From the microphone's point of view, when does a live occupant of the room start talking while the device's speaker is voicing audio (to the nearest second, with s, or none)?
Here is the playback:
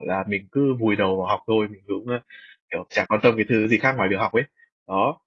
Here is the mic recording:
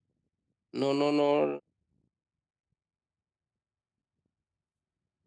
1 s